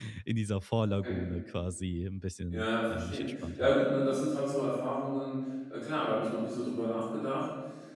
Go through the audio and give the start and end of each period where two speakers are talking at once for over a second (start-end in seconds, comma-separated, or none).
2.5-3.7